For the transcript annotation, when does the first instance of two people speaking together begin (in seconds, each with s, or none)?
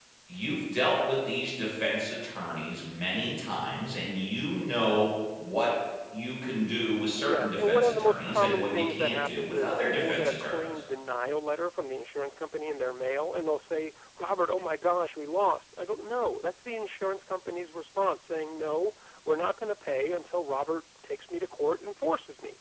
7.0 s